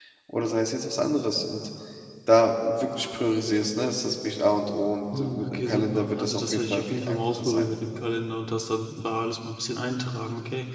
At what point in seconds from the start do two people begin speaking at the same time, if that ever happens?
5.1 s

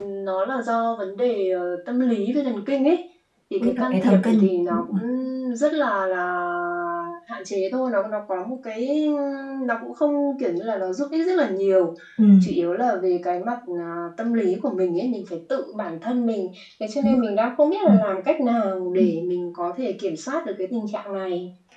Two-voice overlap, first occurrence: 3.6 s

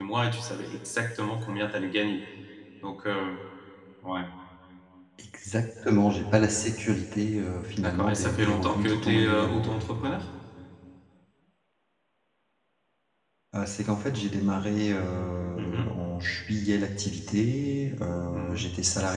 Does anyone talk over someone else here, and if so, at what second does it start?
7.8 s

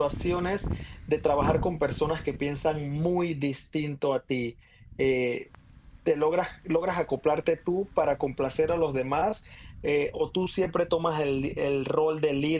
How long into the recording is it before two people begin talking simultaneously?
none

